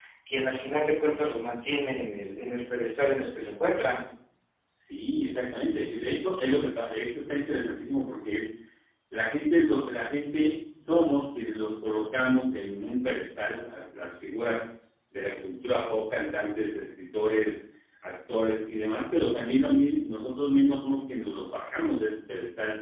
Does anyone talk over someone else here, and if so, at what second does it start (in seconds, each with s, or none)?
none